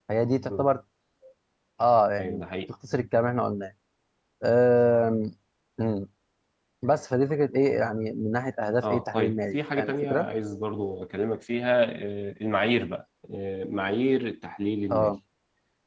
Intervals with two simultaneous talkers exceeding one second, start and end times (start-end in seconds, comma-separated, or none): 8.8-10.3